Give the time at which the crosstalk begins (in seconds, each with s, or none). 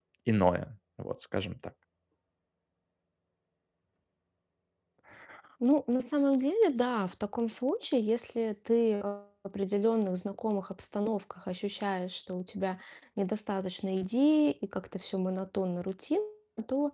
none